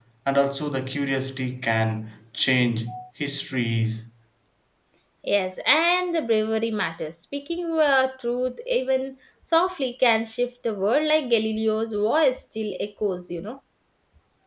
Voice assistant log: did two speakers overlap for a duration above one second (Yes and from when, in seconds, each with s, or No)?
No